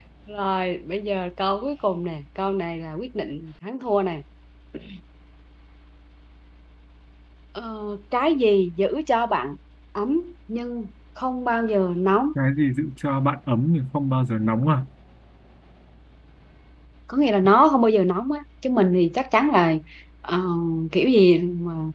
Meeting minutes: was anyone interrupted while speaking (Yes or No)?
No